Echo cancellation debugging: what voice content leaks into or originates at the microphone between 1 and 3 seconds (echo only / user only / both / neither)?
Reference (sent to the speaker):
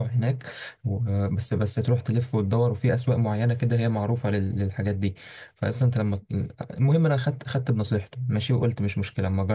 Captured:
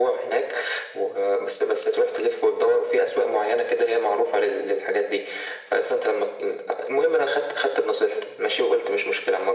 echo only